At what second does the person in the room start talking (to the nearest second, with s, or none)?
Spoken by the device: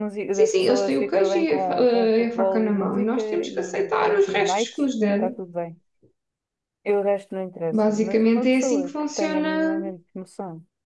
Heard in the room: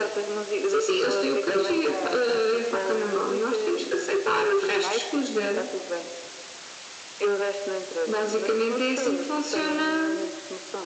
none